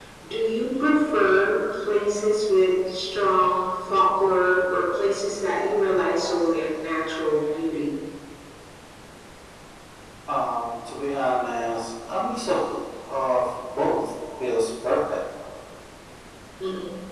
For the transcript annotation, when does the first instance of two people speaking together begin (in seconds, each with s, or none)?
none